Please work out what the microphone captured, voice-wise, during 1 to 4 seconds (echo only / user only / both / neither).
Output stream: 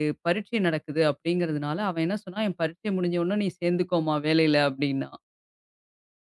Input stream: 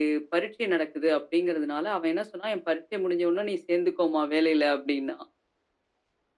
echo only